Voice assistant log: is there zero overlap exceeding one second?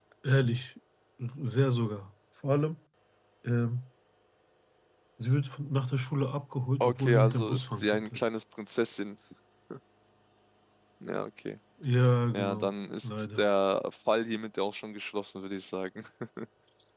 No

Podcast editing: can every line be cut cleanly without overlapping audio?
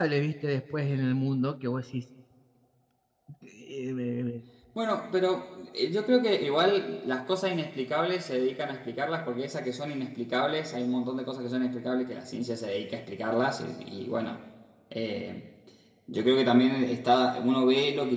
Yes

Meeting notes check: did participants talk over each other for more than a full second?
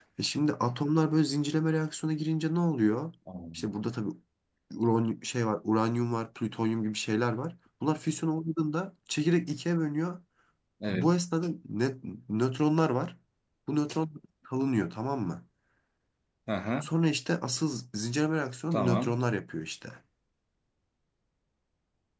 No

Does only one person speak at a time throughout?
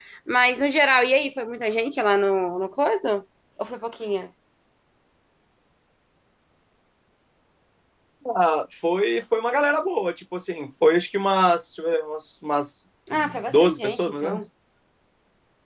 No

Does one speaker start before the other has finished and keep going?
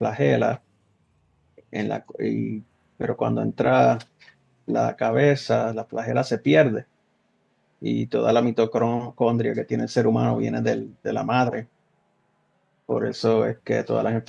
No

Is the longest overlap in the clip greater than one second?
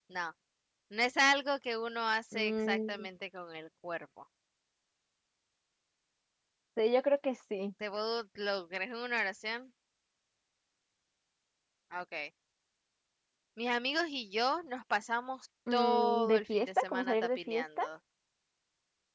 Yes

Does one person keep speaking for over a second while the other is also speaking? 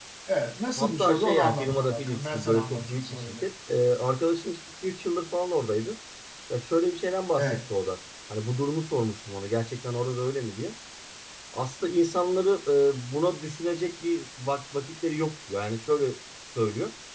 Yes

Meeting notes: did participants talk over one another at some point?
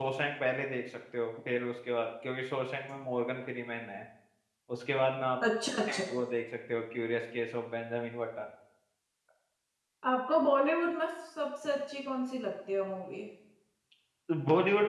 No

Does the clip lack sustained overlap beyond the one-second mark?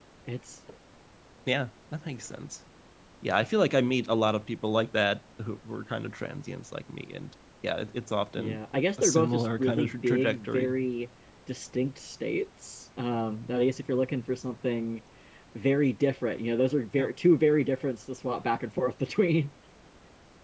No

